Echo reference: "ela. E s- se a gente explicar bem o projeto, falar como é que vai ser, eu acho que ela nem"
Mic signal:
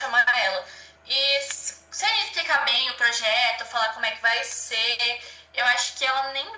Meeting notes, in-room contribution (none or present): none